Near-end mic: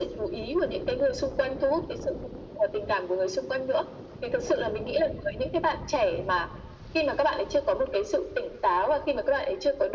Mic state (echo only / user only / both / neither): echo only